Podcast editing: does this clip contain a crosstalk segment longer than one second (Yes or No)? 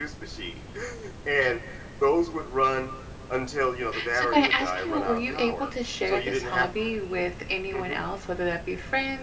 Yes